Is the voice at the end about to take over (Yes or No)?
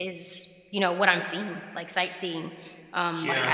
No